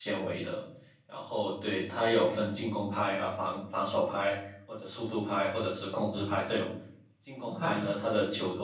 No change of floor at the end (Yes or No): Yes